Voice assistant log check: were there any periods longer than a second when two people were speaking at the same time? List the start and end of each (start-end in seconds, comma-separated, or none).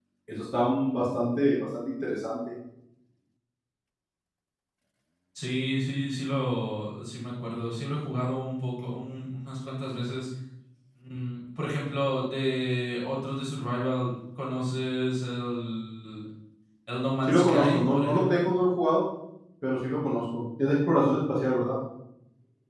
17.2-18.5